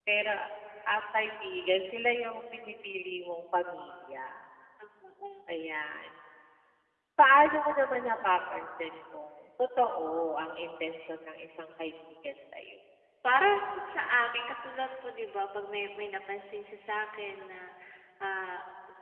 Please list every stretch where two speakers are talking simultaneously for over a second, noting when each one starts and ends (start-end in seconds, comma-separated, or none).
none